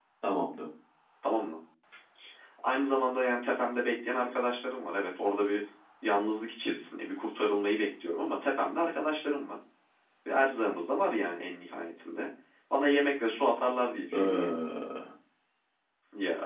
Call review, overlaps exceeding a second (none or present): none